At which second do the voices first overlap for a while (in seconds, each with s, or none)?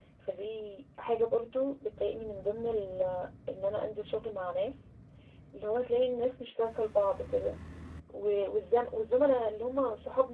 none